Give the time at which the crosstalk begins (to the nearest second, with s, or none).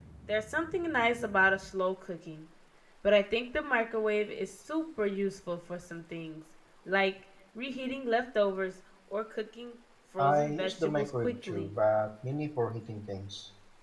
10 s